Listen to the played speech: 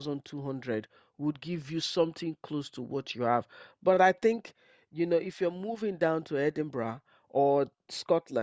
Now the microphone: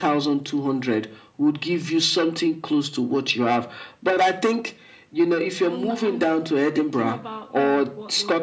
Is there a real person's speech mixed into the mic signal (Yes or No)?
Yes